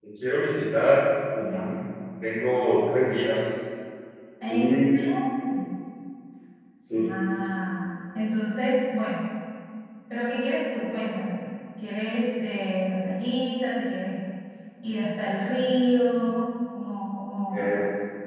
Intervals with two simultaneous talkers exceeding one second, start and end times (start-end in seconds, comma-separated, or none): none